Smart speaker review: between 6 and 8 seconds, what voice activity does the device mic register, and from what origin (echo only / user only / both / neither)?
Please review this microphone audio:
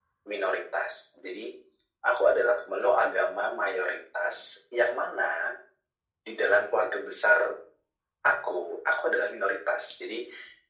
echo only